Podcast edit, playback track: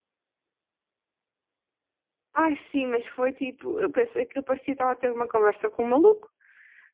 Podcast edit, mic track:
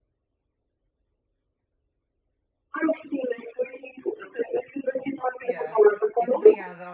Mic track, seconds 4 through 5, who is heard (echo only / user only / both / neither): echo only